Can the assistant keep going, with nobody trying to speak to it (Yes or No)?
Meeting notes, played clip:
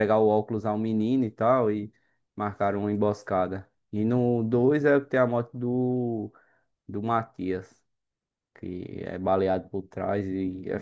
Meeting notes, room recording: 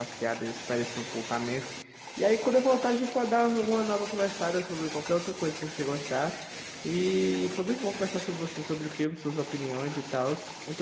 No